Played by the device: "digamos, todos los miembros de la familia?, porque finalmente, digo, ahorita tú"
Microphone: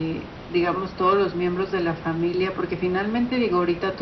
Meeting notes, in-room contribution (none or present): none